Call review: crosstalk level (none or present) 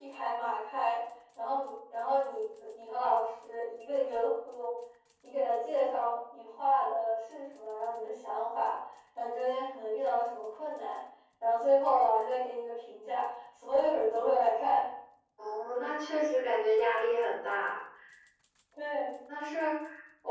none